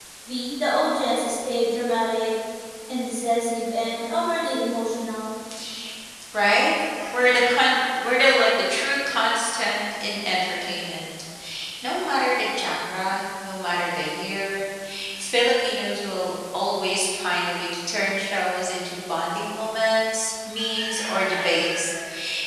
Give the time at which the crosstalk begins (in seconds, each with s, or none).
none